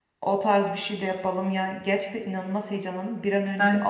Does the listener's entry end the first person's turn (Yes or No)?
No